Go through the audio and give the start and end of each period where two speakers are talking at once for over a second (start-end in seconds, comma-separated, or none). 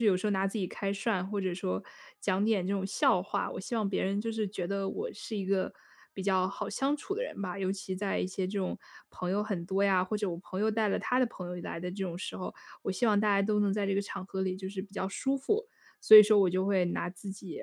none